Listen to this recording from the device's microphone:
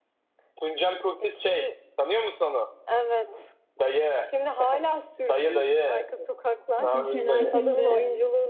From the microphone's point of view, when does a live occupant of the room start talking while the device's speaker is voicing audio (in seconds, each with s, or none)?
6.8 s